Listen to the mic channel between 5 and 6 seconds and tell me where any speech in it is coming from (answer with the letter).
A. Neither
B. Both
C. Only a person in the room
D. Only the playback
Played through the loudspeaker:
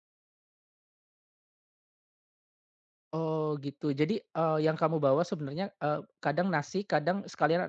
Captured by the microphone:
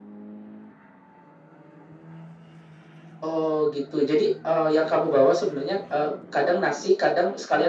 D